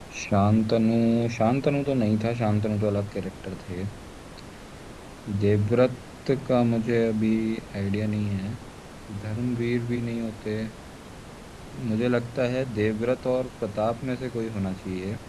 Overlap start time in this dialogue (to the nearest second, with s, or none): none